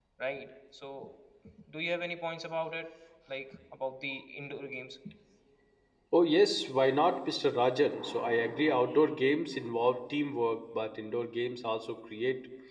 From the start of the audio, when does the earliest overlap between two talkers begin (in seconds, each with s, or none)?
none